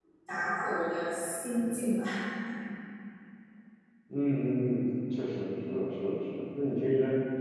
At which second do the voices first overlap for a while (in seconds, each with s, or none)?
none